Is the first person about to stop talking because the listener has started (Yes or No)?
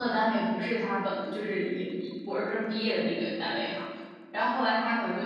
No